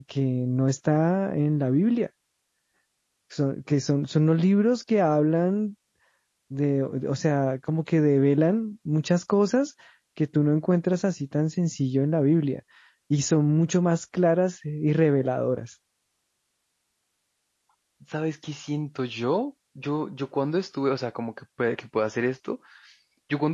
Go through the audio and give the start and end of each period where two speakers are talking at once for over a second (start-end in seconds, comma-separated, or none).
none